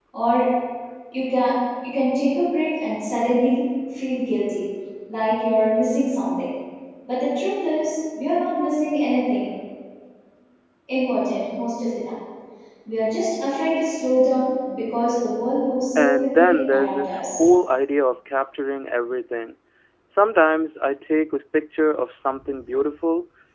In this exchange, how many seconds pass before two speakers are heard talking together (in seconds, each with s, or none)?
15.9 s